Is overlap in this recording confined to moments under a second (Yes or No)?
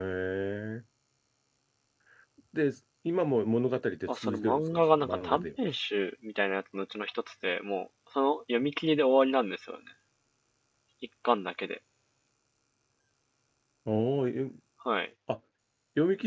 No